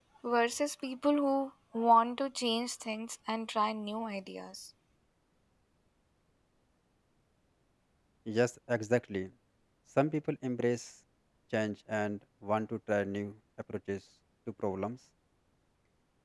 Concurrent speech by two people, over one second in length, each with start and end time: none

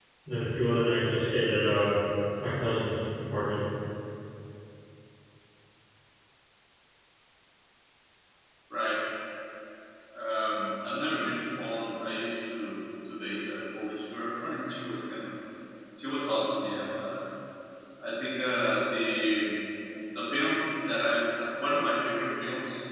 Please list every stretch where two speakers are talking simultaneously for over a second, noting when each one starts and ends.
none

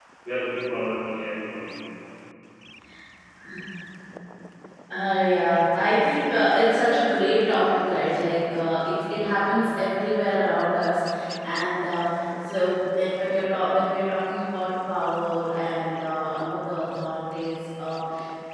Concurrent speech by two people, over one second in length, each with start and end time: none

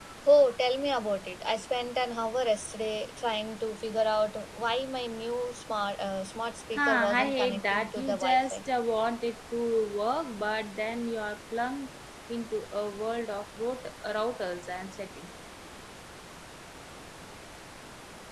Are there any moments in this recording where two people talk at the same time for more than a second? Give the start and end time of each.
6.7-8.6

